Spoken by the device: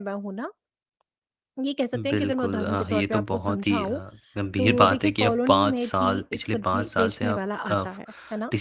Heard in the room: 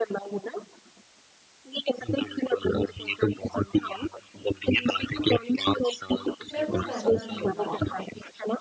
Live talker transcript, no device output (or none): मैं वो फैसला नहीं ले पा रही हूँ